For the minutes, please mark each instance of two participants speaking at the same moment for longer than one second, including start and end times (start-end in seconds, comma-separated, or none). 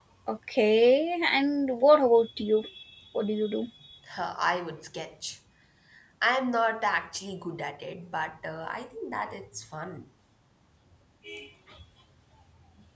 none